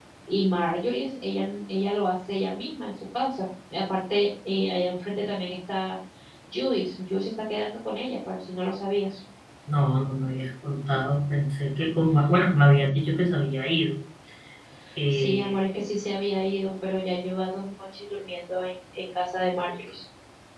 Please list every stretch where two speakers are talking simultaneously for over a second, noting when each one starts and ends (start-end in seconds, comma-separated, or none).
none